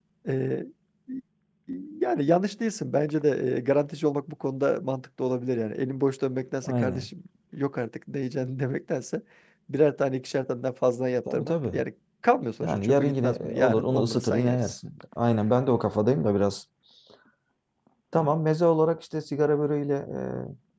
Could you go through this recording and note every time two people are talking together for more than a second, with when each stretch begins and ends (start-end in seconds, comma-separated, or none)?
12.6-14.8